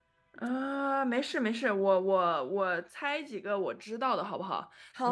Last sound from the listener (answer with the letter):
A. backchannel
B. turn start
B